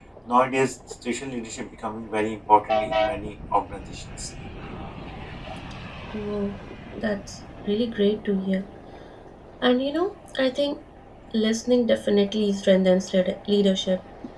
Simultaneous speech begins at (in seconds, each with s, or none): none